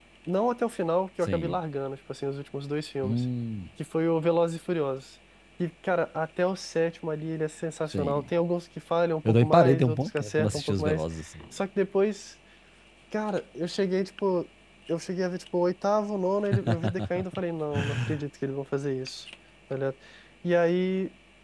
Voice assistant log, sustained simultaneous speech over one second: present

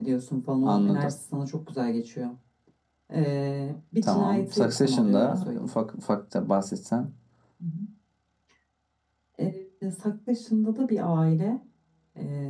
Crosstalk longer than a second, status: present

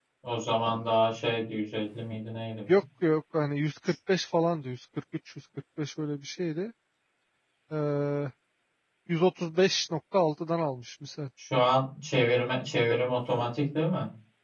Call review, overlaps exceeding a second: none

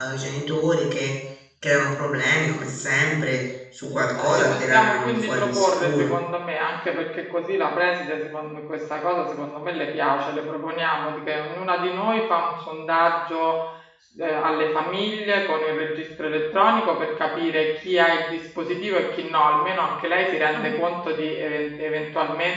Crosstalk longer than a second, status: present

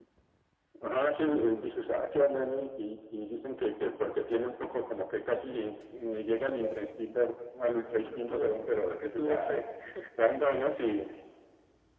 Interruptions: present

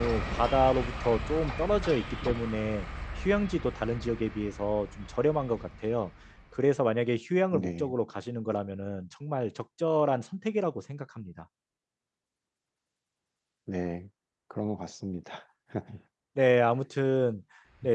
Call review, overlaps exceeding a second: none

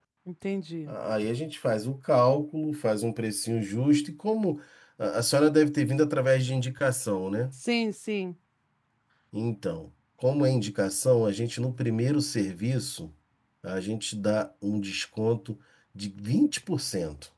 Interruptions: none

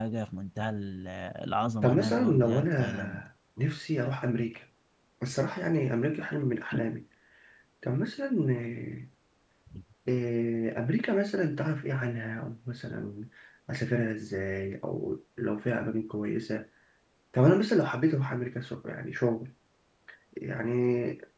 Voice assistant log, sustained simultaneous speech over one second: present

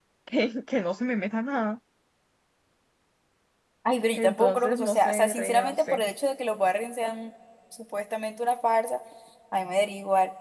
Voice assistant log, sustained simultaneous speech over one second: present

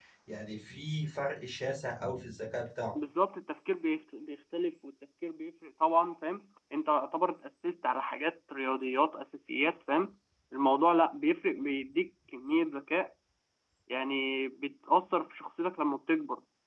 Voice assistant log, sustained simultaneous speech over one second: none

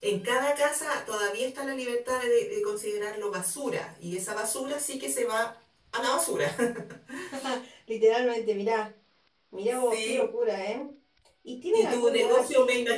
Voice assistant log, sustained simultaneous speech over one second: present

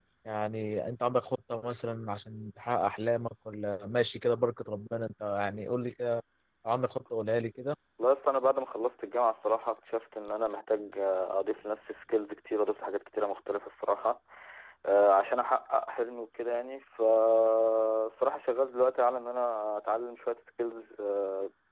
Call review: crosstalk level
none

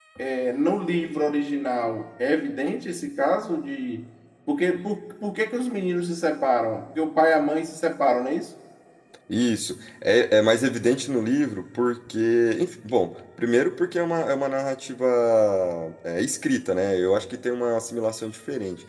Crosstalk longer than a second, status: none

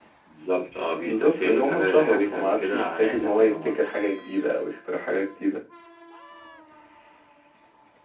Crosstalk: present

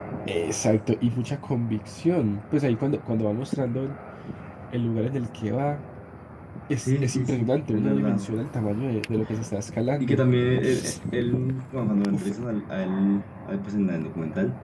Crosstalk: present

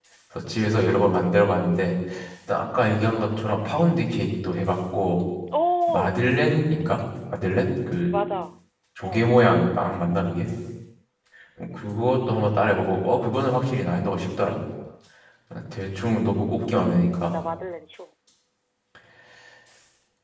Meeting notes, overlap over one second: none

